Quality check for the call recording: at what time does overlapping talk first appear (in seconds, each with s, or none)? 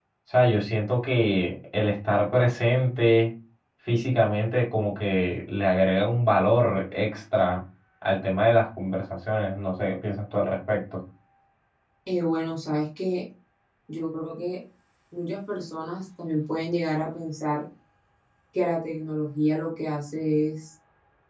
none